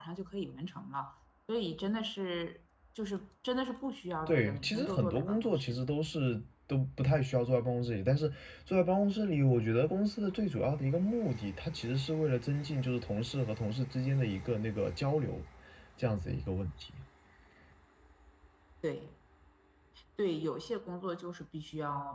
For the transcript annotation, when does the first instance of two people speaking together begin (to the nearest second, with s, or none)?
4 s